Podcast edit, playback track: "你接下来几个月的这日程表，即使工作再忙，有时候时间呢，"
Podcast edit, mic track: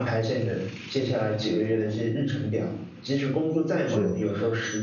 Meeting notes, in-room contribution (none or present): present